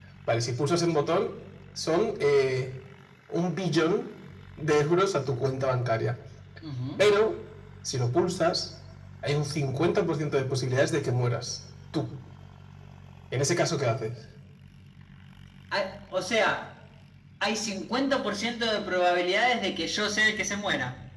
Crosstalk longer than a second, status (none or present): none